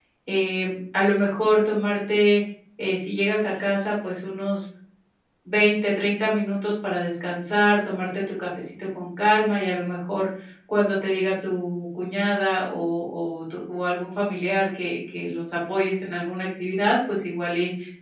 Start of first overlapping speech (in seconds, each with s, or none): none